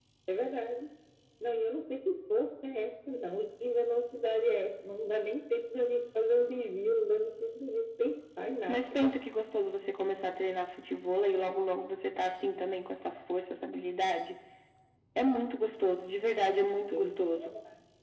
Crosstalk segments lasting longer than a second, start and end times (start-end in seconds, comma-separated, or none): none